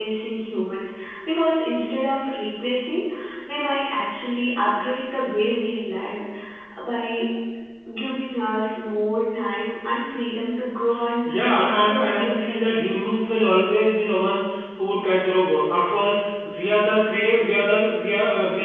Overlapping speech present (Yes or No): Yes